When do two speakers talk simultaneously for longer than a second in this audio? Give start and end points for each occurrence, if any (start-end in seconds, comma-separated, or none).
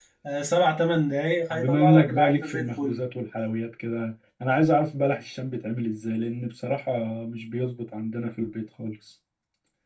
1.5-3.0